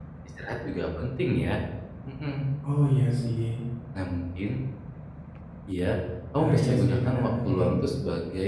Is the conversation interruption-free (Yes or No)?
No